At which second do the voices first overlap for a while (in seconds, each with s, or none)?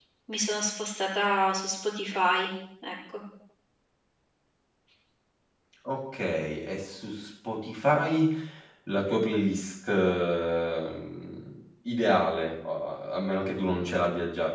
none